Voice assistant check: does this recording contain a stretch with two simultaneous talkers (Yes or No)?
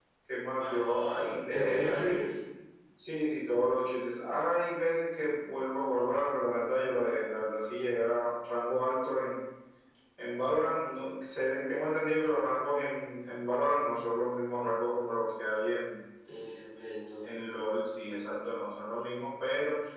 Yes